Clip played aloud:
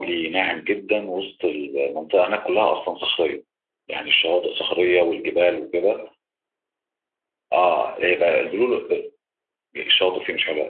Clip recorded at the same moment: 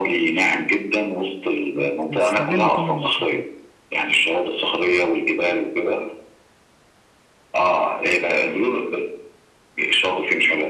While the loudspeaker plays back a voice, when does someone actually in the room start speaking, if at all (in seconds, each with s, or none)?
1.7 s